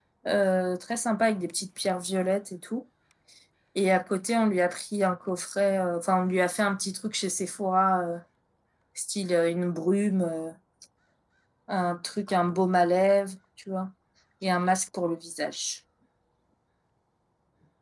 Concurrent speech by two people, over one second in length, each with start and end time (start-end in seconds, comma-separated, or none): none